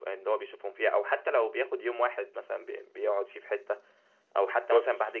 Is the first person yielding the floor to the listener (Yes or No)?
No